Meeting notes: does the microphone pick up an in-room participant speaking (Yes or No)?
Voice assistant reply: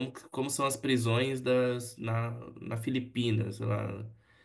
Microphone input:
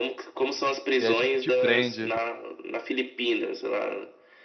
Yes